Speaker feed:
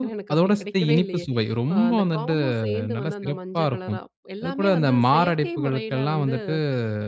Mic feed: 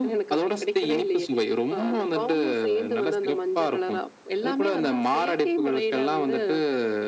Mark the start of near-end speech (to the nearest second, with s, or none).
none